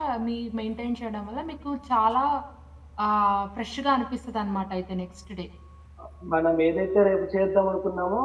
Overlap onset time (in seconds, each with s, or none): none